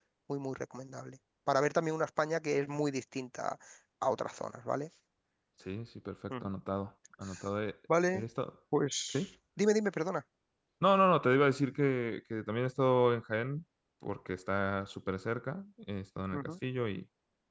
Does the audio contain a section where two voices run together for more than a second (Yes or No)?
No